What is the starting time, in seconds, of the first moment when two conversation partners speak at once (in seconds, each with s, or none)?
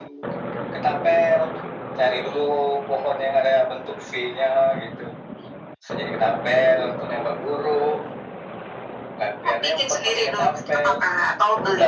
9.5 s